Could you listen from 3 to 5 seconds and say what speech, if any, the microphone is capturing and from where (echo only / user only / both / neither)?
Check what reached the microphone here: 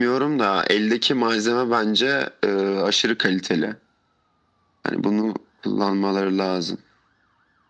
echo only